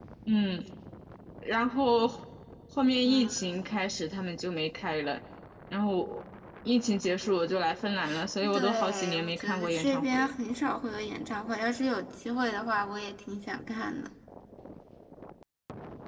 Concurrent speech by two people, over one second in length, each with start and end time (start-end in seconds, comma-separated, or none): 8.5-10.3